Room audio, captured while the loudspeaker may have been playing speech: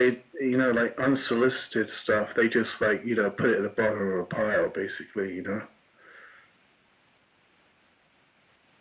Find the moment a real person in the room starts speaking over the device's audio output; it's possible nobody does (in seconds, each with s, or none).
none